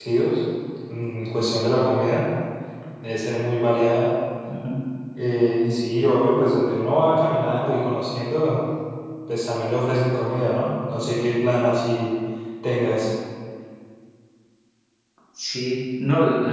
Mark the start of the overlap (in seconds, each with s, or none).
none